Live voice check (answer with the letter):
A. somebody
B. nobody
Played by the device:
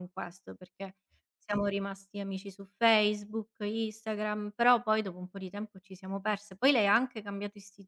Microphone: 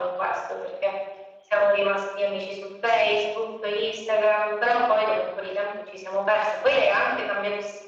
B